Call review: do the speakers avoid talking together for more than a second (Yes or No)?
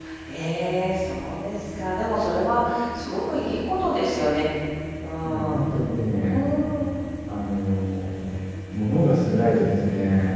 Yes